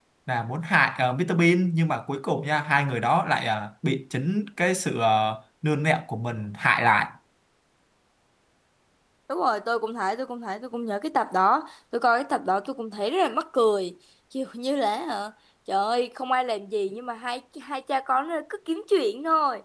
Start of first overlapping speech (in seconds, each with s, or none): none